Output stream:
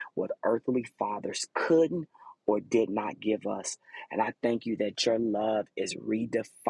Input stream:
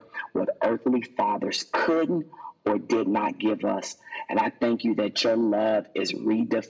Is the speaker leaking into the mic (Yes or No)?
Yes